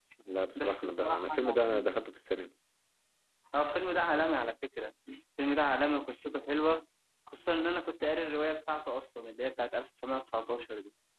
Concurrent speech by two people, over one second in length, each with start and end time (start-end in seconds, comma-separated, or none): 0.6-1.9